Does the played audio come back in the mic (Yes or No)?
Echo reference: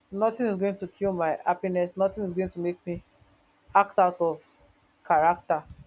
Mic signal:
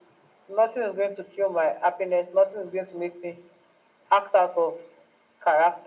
Yes